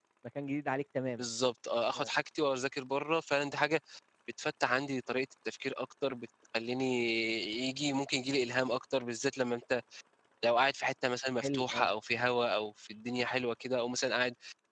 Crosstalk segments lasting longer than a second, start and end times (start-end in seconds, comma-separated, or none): none